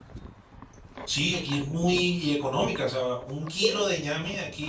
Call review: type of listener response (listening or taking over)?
listening